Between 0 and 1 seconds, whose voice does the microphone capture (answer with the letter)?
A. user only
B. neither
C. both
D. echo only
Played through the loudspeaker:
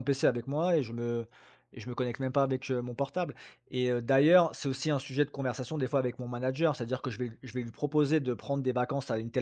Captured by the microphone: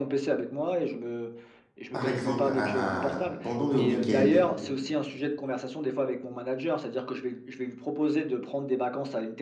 D